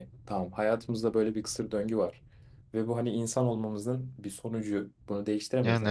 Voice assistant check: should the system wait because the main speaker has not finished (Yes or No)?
Yes